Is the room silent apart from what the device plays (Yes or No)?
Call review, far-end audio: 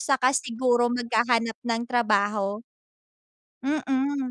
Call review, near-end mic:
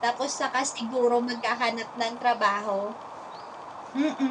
Yes